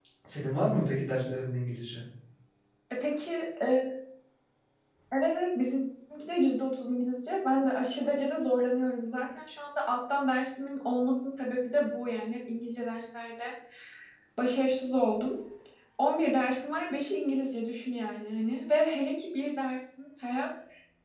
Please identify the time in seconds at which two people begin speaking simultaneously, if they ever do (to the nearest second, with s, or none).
none